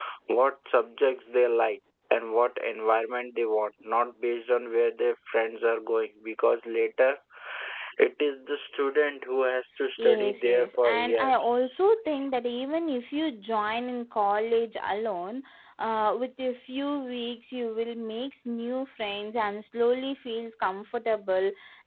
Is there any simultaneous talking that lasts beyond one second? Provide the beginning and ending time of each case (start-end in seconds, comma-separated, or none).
10.0-11.8